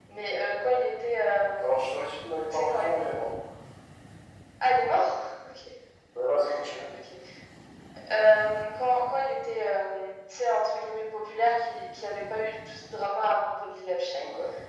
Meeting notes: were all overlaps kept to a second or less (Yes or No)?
Yes